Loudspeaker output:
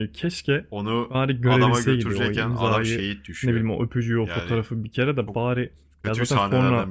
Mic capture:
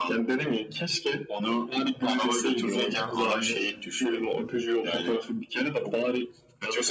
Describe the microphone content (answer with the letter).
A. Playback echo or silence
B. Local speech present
A